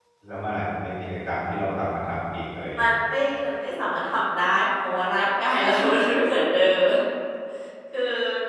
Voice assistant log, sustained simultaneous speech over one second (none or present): none